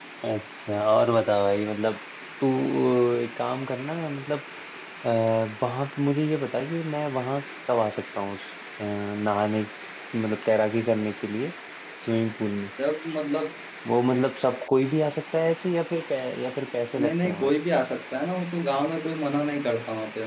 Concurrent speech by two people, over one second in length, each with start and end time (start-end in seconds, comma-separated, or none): none